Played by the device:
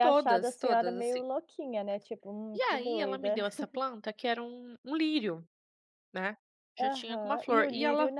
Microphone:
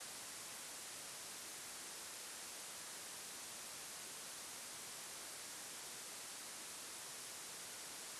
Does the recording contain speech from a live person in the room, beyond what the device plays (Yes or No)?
No